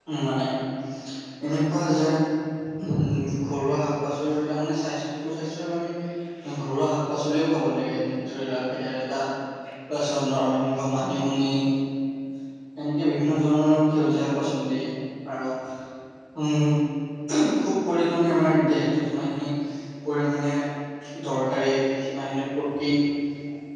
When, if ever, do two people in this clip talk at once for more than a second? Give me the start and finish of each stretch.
none

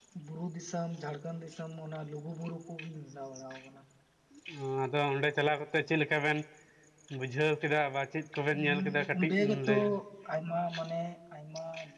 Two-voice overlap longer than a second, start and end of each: 8.5-9.9

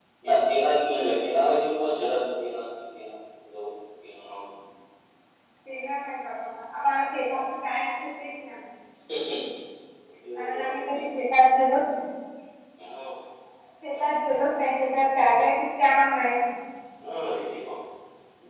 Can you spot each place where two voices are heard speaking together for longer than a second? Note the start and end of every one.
none

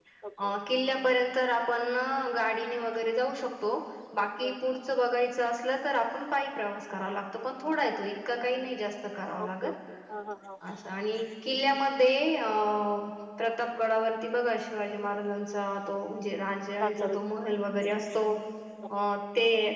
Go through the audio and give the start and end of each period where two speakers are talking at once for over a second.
none

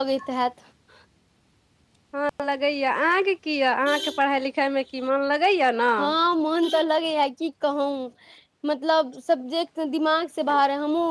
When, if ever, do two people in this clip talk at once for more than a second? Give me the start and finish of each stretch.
none

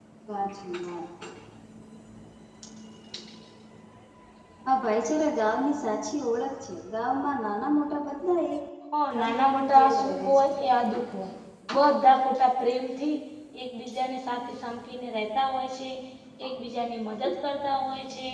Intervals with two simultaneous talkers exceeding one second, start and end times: 9.2-10.5

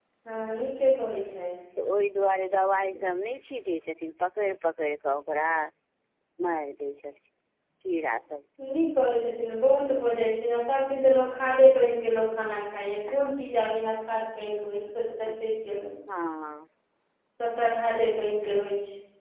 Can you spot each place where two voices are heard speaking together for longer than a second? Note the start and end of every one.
none

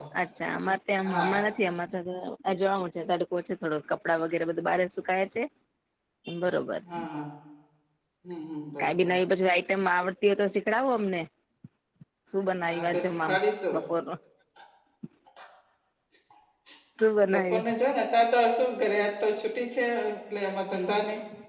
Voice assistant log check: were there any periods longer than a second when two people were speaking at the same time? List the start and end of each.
none

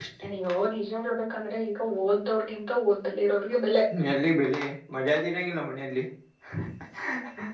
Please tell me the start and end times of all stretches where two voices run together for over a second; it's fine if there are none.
none

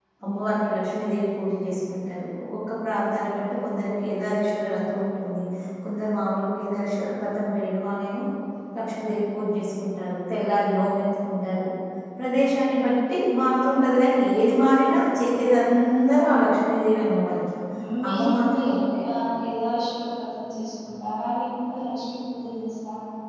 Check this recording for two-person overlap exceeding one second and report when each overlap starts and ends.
18.1-19.3

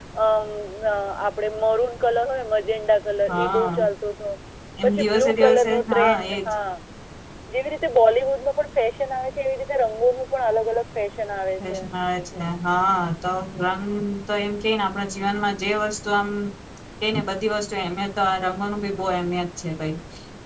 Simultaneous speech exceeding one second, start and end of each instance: 4.8-6.4

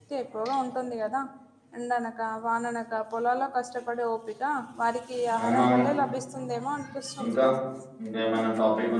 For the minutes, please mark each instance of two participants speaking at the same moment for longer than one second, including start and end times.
none

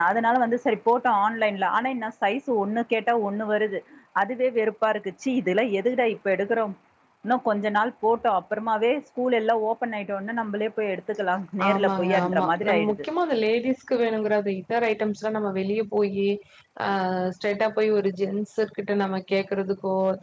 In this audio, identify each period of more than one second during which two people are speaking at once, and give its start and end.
11.7-13.1

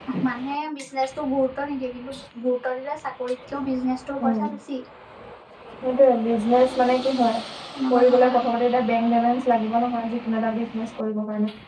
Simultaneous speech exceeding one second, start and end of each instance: none

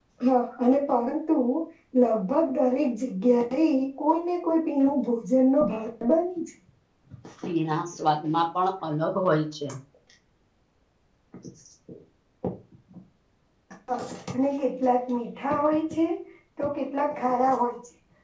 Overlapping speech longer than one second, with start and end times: none

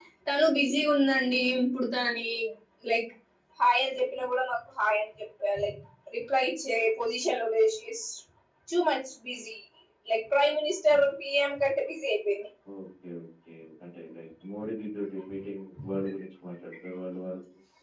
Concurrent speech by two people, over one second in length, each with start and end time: none

